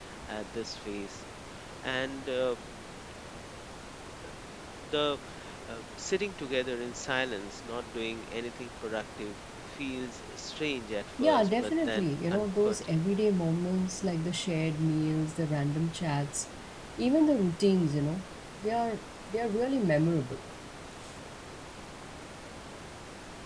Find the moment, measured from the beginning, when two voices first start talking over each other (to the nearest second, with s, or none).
11 s